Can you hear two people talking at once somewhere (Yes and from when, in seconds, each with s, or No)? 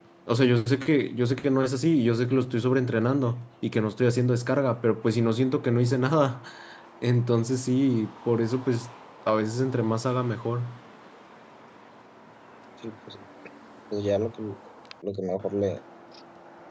No